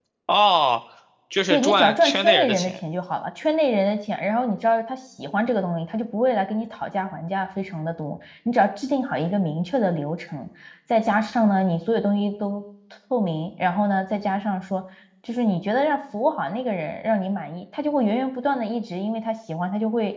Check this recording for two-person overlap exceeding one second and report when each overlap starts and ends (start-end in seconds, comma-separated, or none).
1.5-2.8